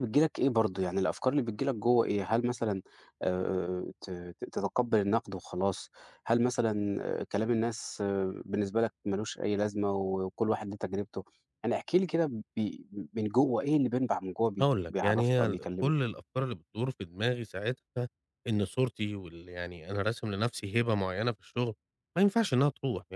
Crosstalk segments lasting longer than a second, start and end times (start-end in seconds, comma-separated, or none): 14.6-15.9